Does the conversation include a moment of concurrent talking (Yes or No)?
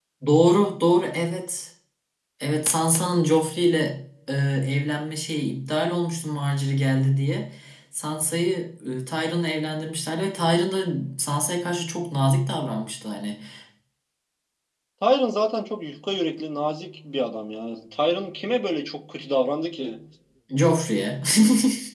No